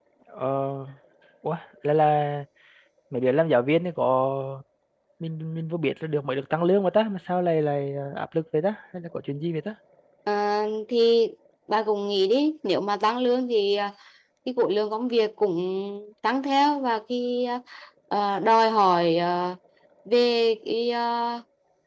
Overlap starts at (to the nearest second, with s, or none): none